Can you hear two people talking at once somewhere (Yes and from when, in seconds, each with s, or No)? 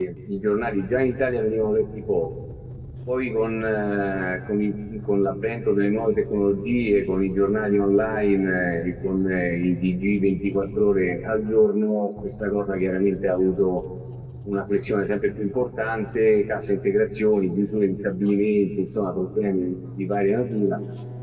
No